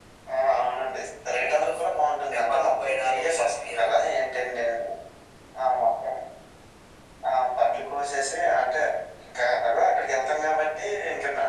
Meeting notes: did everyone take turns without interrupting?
No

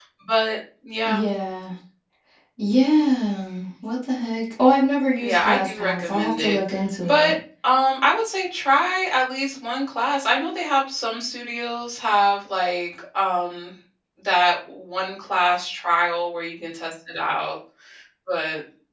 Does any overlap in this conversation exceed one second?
Yes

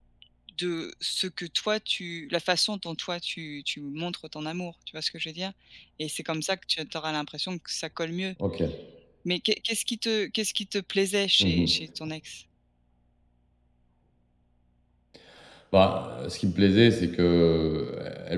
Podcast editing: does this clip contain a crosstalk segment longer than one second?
No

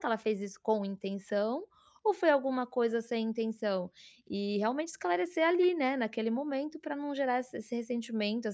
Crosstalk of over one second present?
No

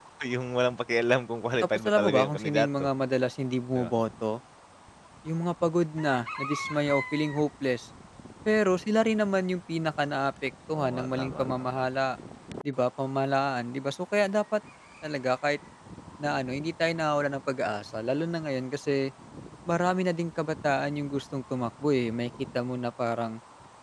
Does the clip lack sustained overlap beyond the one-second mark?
No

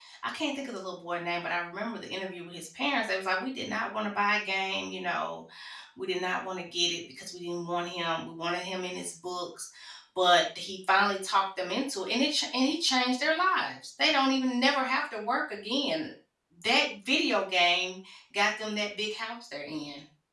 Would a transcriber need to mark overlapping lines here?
No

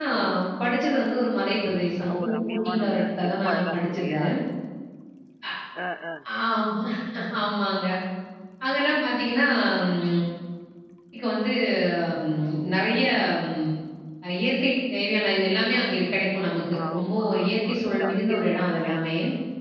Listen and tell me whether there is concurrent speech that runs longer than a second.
Yes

